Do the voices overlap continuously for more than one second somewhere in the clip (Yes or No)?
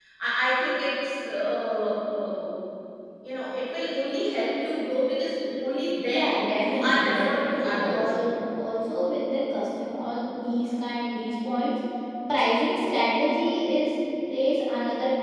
Yes